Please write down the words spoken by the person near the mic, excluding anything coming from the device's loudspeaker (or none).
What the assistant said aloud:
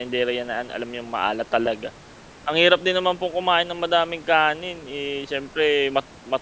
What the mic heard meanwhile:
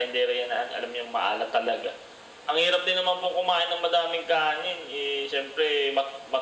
none